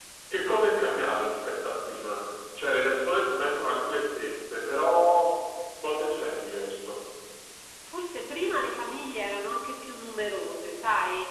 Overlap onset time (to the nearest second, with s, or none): none